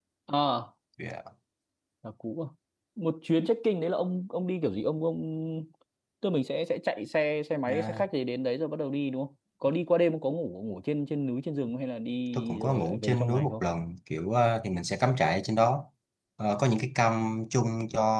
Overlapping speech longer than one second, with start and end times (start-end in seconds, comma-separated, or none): 12.3-13.6